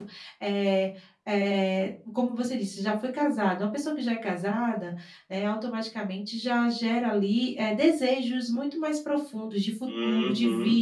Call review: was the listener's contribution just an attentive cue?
No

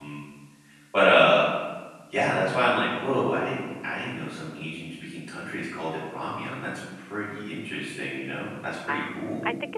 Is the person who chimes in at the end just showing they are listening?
No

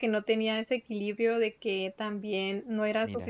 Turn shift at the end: No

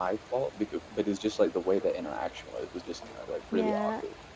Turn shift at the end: Yes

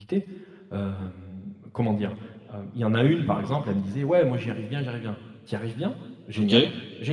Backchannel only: Yes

